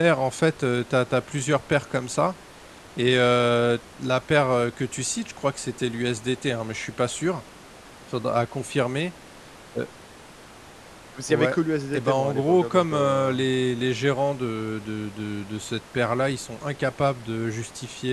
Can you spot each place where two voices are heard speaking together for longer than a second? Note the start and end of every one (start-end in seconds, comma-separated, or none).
11.9-13.4